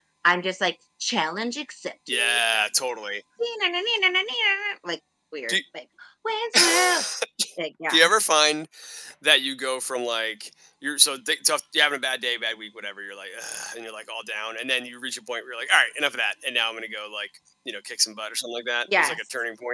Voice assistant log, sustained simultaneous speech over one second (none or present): none